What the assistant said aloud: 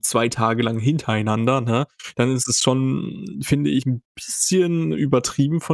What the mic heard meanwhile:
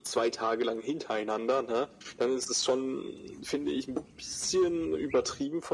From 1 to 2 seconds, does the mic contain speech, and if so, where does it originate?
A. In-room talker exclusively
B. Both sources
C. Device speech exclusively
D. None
C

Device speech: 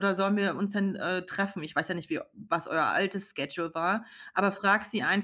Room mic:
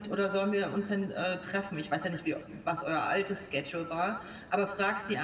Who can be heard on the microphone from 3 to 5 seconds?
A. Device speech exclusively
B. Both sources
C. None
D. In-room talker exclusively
A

